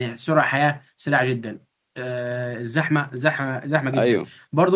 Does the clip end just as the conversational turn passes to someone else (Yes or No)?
No